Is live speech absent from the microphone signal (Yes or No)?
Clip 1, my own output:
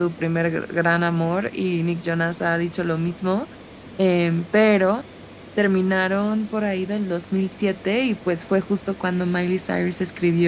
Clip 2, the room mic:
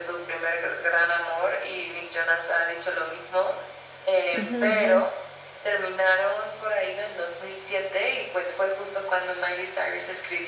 No